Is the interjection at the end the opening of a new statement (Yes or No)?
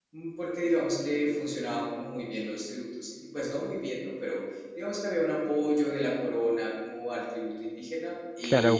Yes